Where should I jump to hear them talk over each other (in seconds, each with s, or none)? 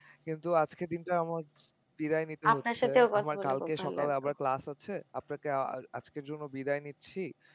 2.5 s